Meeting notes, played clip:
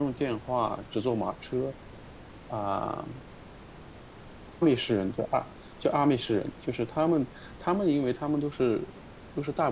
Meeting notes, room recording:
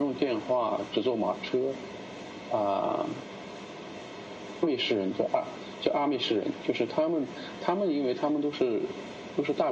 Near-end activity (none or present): none